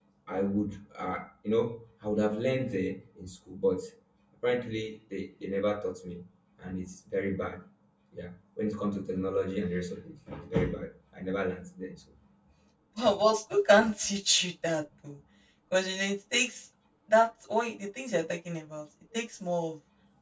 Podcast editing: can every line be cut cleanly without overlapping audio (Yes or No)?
Yes